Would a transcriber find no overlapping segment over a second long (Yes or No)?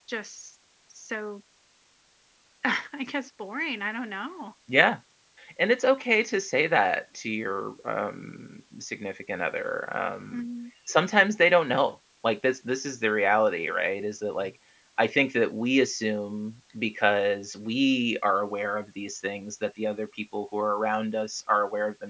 Yes